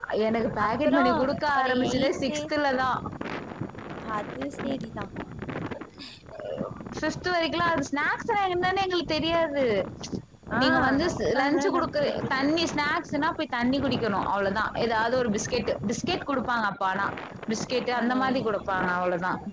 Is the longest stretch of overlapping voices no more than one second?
No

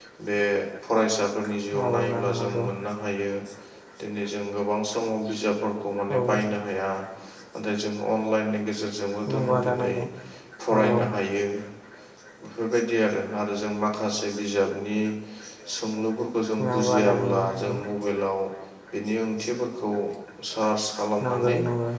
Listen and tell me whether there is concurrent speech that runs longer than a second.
Yes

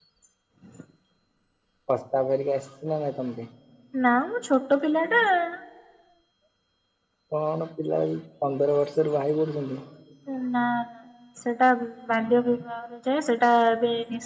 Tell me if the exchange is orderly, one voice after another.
Yes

